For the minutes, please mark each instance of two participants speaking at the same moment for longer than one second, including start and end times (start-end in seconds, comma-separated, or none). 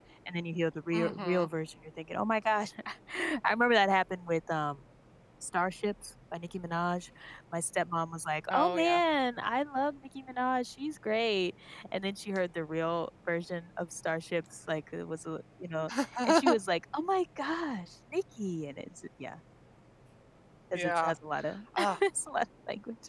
none